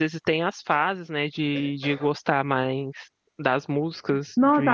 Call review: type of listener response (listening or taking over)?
taking over